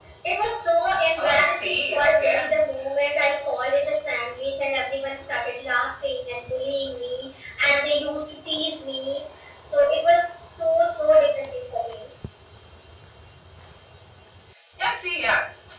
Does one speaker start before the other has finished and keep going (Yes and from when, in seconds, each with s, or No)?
Yes, from 1.2 s